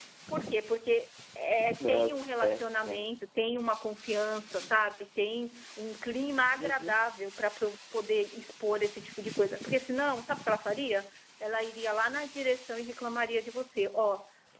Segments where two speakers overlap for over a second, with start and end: 1.8-3.0

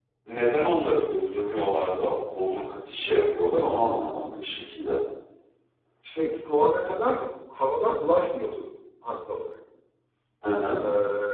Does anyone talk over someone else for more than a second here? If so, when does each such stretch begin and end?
none

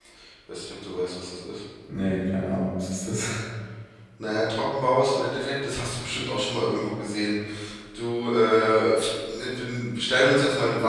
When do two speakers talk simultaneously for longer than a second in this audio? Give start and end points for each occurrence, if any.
none

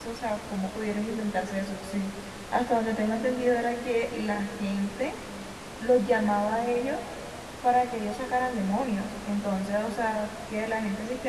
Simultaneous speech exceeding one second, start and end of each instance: none

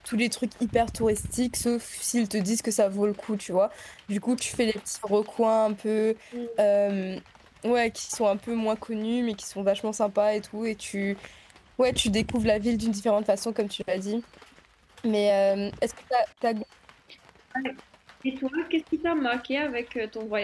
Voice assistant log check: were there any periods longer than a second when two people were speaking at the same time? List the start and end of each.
none

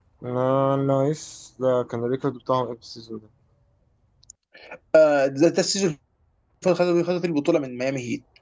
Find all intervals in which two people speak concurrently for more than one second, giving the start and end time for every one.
none

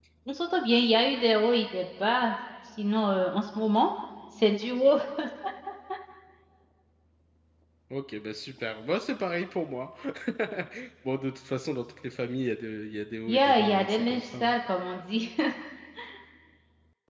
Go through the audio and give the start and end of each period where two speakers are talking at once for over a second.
13.3-14.5

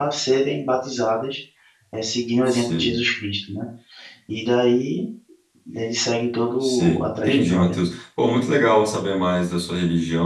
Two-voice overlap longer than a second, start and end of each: 6.6-7.8

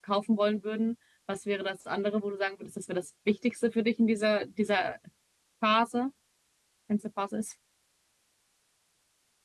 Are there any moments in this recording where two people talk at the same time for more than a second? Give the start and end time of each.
none

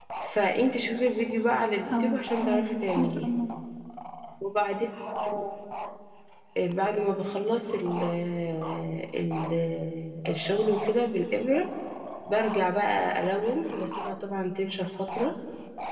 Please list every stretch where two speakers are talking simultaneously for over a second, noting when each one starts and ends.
1.9-3.3

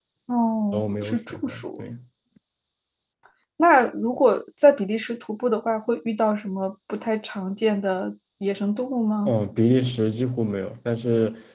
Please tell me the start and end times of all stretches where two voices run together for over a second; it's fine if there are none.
0.7-1.9

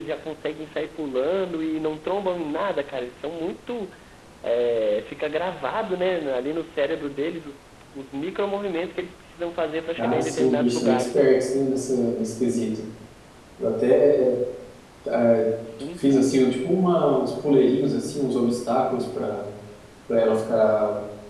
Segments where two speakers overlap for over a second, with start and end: 10.0-11.3

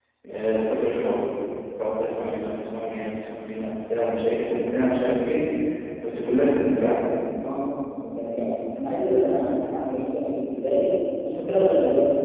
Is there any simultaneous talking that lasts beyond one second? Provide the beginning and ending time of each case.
none

